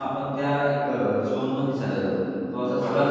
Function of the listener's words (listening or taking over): listening